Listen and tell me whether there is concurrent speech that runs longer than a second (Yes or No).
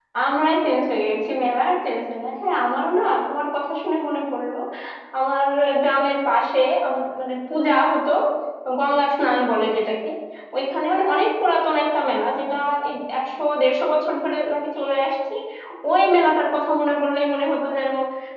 No